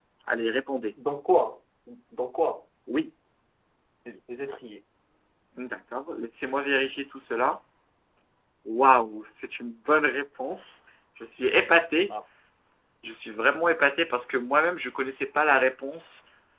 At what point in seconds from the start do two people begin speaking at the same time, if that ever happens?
none

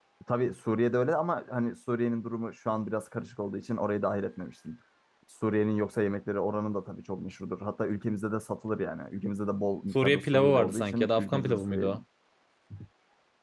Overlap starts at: 10.0 s

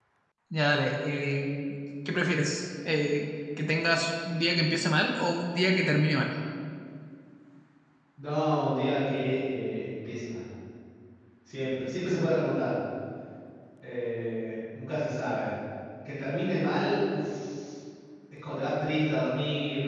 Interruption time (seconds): none

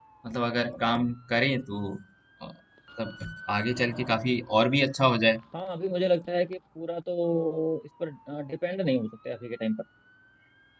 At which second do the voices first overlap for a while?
none

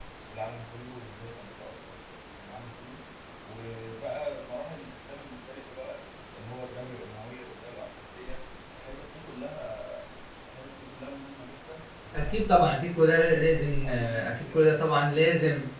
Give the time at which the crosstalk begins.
12.1 s

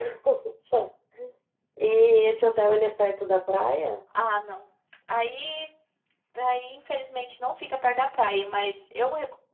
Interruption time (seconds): none

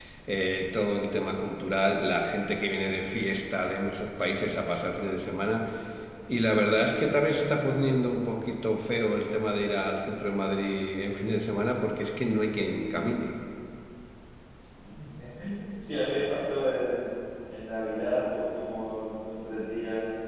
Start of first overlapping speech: none

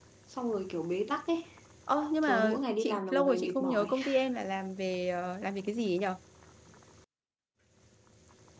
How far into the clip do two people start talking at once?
2.2 s

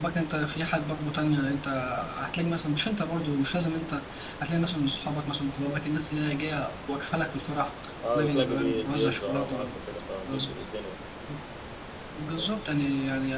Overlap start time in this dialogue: 8.2 s

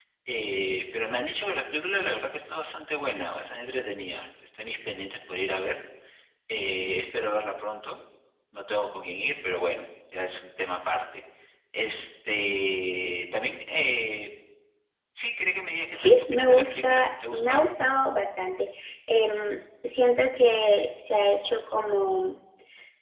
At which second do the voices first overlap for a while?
15.9 s

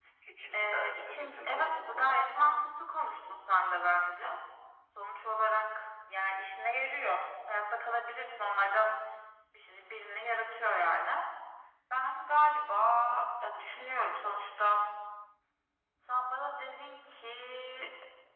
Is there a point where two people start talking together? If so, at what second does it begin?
0.5 s

